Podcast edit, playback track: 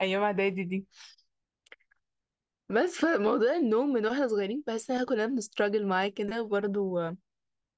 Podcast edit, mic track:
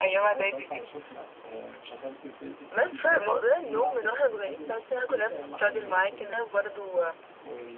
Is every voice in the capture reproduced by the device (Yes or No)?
No